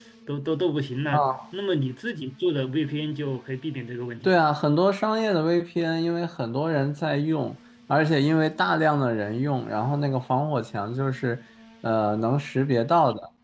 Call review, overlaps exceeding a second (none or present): none